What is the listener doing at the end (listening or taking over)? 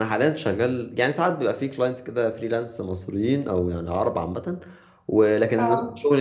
listening